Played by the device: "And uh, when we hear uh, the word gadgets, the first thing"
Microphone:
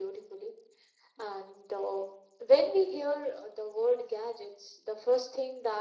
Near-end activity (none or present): none